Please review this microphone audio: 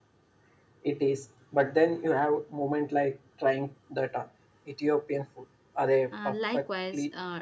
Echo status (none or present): present